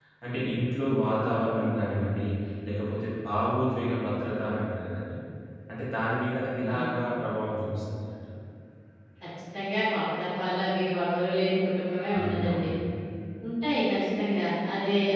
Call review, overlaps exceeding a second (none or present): none